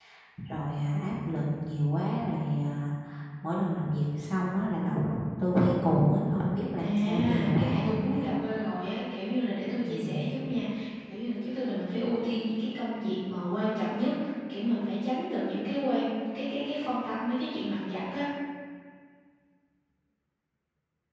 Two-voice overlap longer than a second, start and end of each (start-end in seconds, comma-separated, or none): 6.8-8.3